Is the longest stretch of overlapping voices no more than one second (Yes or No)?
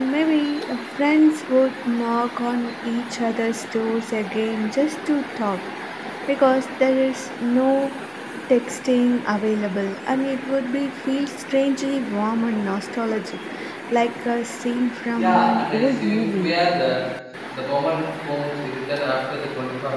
No